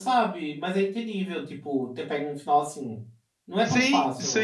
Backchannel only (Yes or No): No